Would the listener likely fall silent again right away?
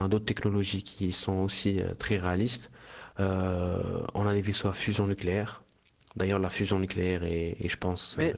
No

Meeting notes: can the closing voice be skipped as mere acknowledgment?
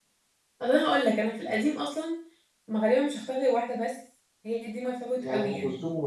No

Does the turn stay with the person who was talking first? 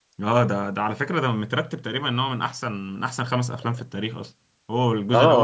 No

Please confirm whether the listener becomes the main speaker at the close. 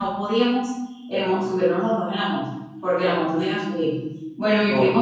No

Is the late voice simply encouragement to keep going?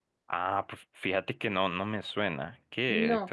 No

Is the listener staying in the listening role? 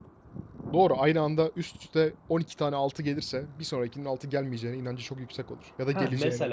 No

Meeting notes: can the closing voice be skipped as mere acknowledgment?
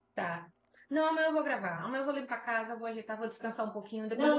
No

